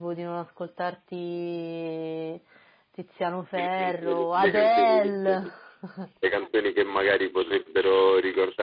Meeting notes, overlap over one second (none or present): present